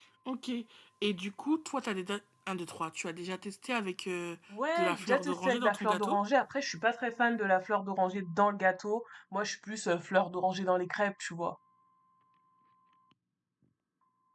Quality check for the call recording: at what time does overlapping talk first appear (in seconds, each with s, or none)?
4.8 s